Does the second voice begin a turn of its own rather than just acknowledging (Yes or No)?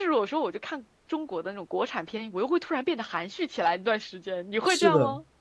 Yes